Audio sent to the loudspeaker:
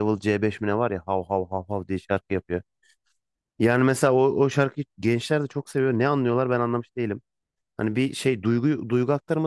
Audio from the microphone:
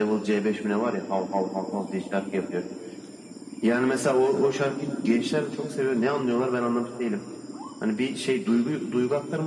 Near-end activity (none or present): none